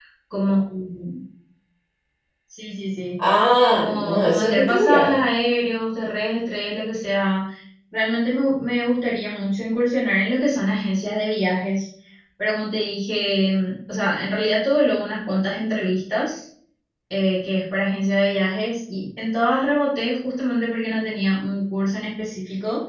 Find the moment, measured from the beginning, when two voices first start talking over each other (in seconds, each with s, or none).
3.7 s